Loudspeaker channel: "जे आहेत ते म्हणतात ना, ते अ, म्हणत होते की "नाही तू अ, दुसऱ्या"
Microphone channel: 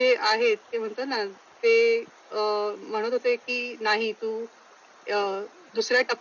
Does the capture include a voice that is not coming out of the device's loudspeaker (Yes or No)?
No